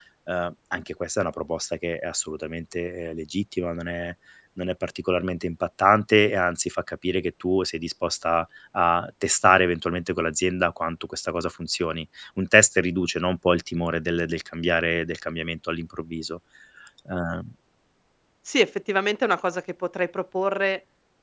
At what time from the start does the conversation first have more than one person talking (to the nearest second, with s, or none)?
none